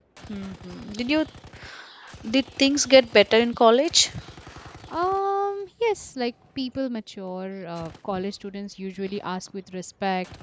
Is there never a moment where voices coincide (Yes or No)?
Yes